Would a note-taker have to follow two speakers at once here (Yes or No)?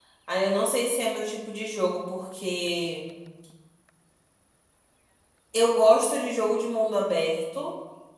No